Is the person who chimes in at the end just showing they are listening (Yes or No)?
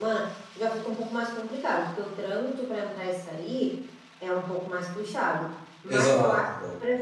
Yes